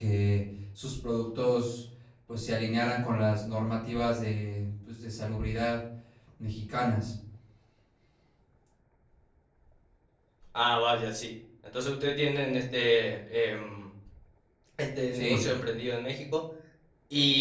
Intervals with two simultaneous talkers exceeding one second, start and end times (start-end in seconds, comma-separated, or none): none